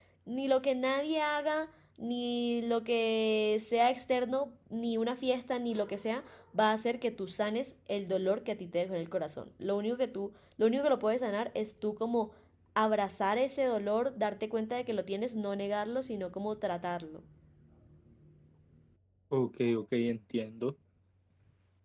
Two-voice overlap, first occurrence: none

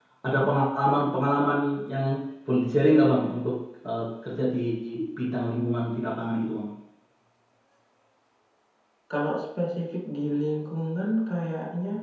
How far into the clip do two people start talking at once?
none

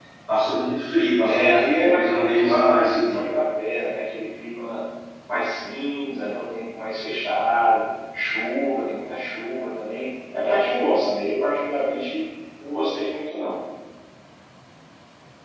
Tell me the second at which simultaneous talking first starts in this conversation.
1 s

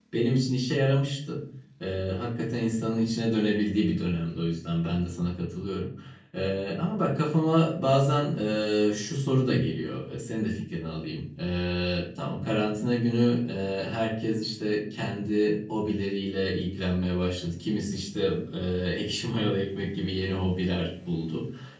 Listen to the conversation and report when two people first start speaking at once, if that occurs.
none

